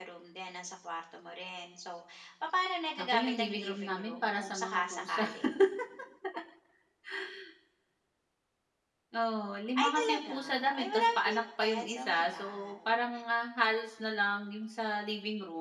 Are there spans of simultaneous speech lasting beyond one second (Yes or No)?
Yes